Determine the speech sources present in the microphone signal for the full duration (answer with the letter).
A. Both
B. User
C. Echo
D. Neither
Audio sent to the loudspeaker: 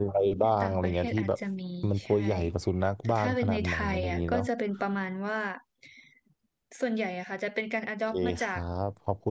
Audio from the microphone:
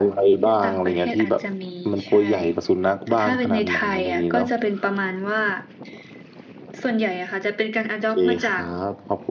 C